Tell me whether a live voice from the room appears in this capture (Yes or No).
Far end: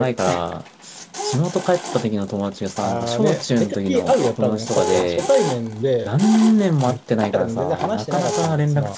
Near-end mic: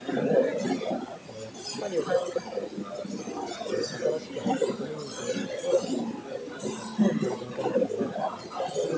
Yes